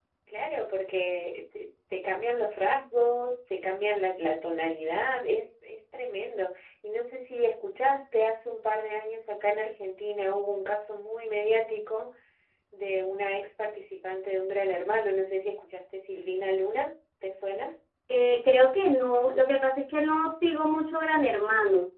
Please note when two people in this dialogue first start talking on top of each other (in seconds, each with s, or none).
none